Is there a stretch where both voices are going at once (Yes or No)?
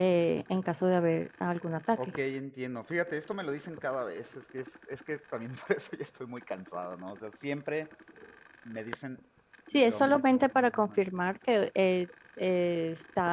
Yes